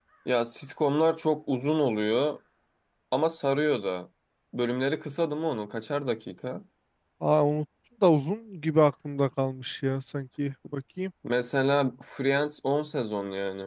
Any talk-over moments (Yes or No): No